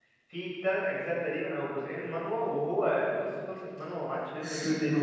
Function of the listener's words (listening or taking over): taking over